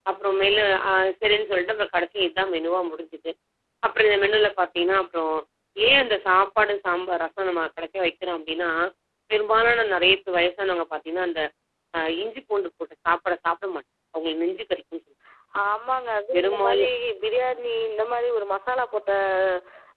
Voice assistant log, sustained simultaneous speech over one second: none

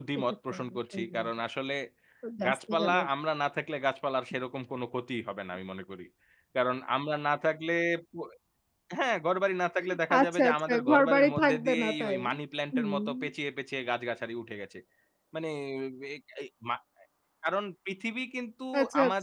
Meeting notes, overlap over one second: present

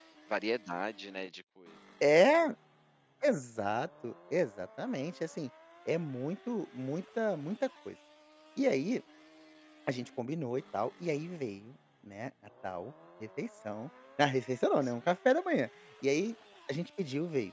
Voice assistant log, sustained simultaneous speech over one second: none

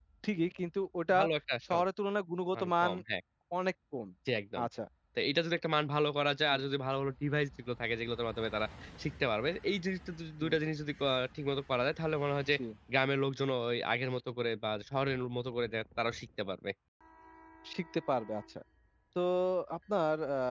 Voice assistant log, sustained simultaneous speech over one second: none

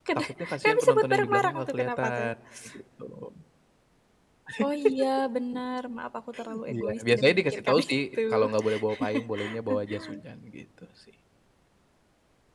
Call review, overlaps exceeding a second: present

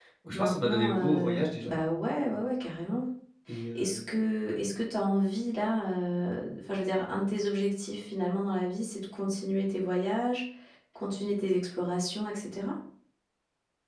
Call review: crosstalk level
present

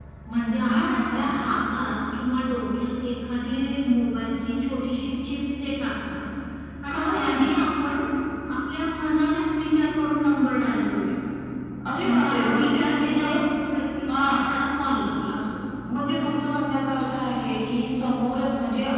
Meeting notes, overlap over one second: present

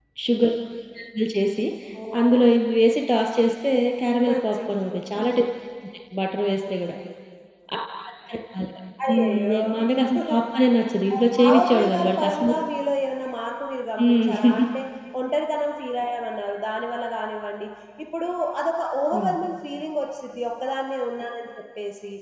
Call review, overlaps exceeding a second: present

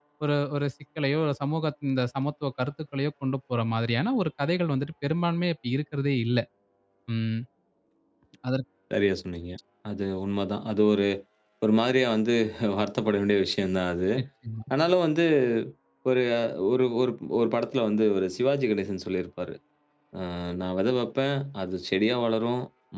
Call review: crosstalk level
none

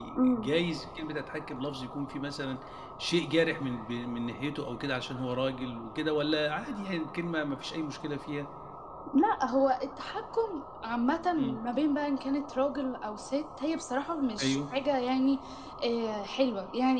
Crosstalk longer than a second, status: none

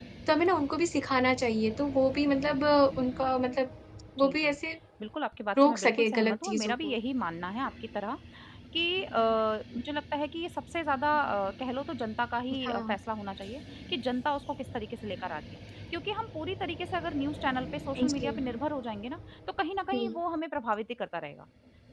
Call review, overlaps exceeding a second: present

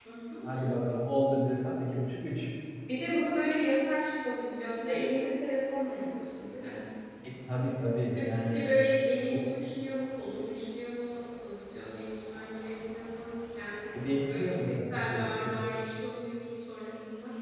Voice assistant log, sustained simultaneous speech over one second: present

